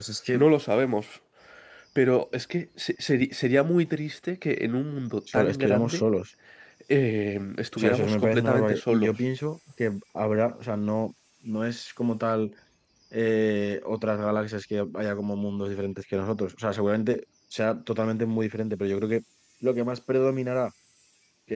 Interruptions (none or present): present